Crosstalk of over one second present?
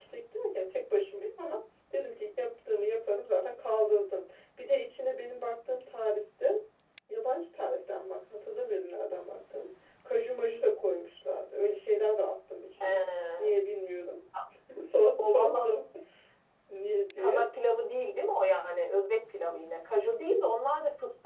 No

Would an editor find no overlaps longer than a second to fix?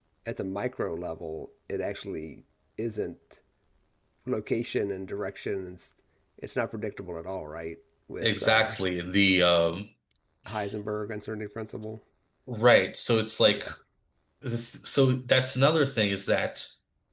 Yes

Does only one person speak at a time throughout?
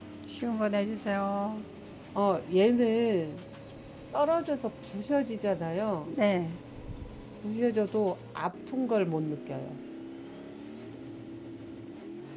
Yes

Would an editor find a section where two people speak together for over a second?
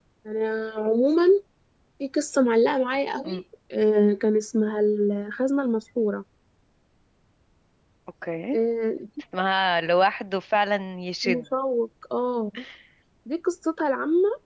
No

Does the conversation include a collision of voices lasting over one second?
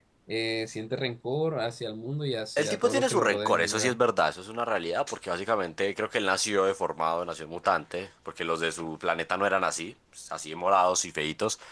Yes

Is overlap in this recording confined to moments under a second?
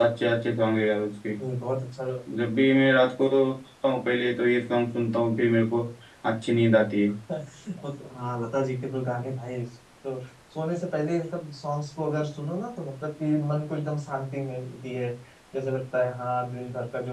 Yes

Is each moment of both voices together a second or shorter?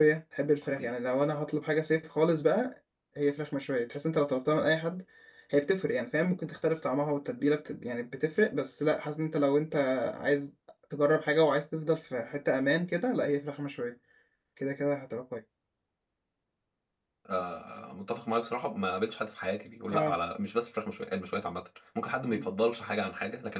Yes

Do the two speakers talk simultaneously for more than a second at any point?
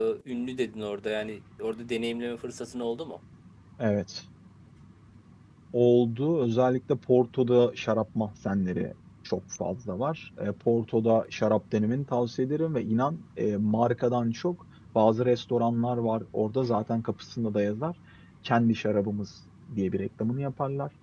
No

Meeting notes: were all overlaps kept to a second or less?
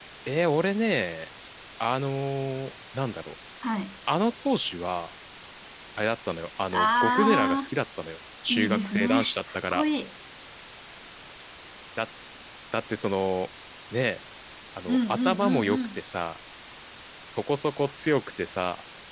No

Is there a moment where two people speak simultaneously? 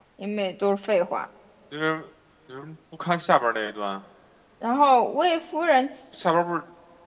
No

